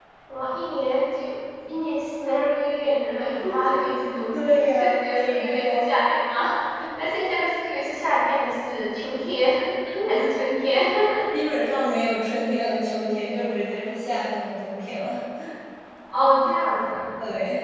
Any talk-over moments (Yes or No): Yes